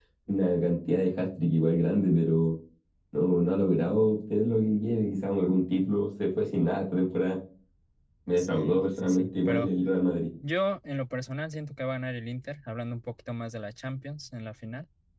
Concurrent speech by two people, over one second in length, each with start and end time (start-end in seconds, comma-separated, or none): 8.4-9.7